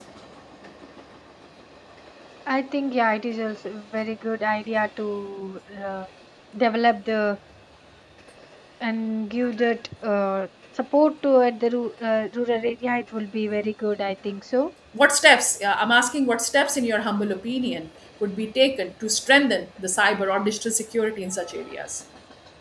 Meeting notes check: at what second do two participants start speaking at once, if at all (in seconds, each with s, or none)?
none